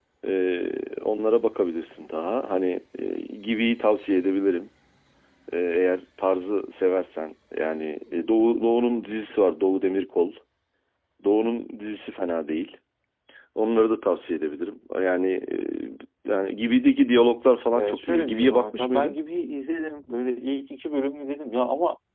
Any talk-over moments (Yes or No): Yes